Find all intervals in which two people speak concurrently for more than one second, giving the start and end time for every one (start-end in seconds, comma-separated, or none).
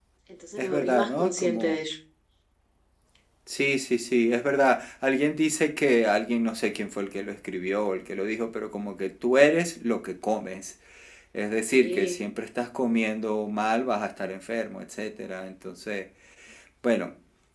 0.6-1.8